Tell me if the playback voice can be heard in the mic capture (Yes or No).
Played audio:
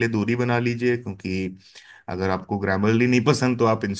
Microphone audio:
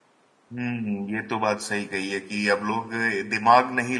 No